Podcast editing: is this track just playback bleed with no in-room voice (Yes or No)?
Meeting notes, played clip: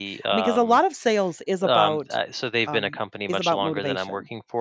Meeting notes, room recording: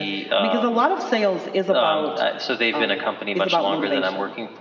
Yes